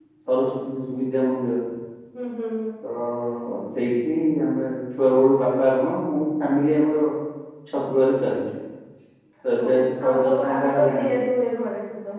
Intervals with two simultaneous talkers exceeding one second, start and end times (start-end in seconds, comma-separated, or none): 9.7-11.1